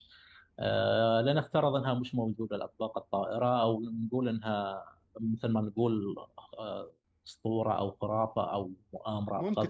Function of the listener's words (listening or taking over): taking over